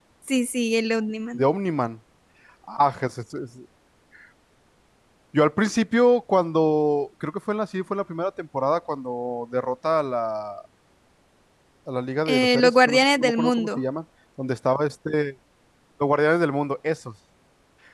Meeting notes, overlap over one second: present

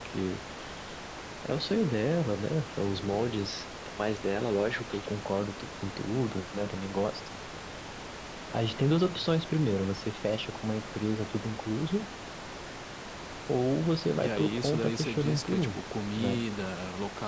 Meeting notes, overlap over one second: present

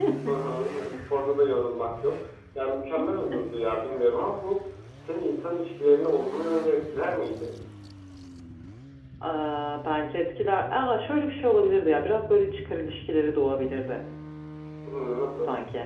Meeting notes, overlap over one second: none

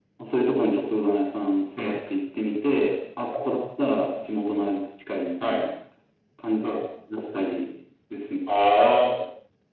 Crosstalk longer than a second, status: none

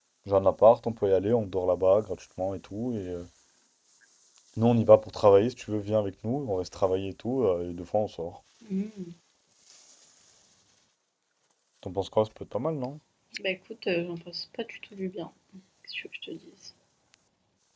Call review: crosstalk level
none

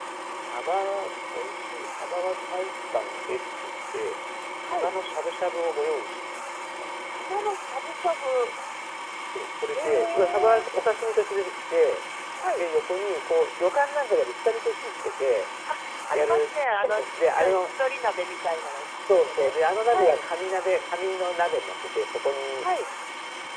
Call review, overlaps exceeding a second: present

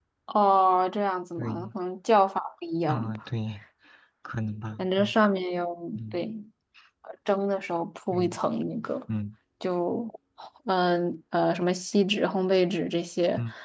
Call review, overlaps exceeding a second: none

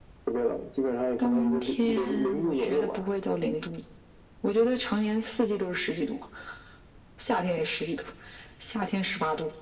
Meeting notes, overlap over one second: present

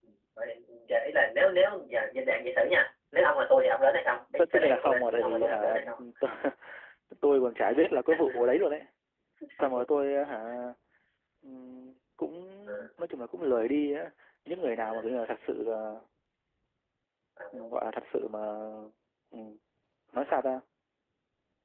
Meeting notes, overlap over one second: present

